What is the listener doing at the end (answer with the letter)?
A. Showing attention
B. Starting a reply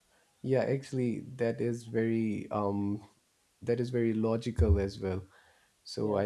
A